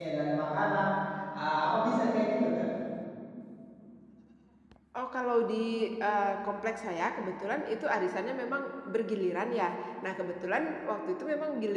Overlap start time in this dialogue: none

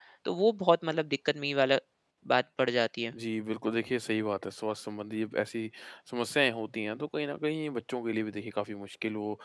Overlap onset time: none

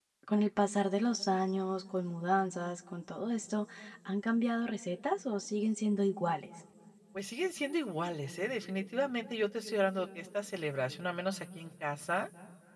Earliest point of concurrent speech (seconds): none

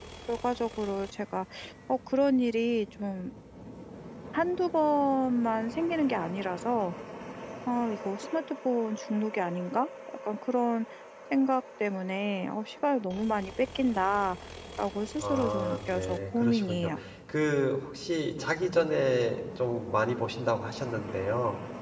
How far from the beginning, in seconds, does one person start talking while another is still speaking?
15 s

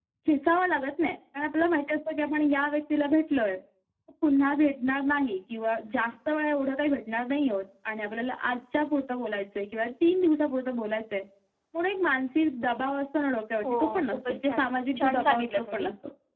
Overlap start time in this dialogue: 14 s

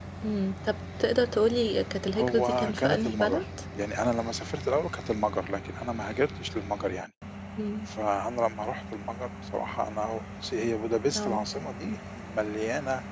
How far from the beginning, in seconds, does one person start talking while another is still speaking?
2 s

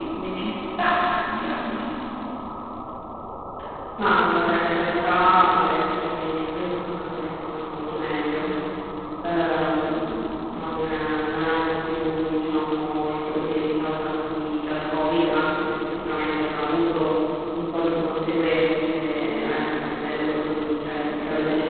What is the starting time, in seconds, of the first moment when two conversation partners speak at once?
none

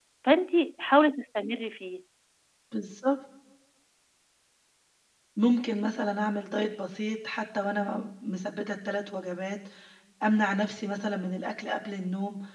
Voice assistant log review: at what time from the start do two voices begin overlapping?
none

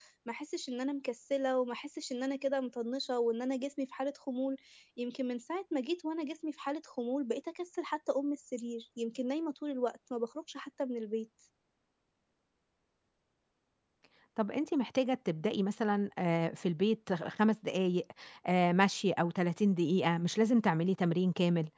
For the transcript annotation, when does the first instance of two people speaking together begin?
none

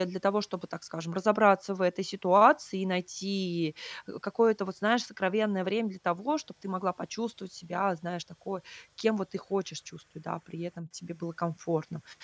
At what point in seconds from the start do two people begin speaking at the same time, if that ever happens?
none

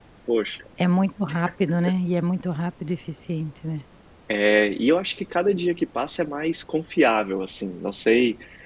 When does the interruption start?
none

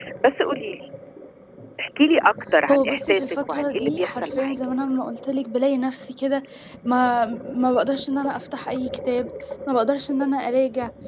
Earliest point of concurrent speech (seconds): 3 s

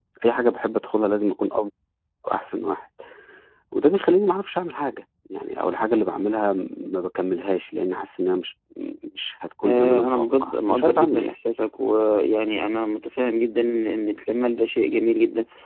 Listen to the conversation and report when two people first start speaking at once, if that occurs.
10 s

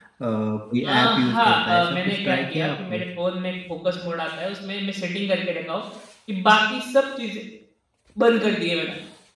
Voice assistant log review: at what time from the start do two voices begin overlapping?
1 s

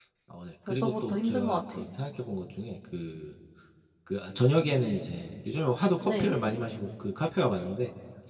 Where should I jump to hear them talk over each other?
1 s

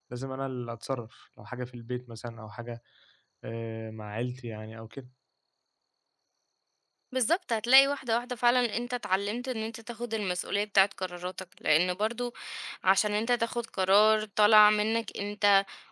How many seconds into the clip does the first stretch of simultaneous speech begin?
none

